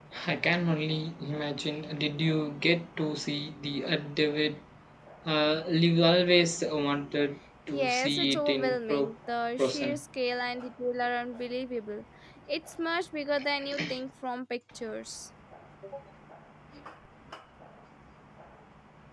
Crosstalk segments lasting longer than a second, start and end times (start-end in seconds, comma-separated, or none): 7.7-9.1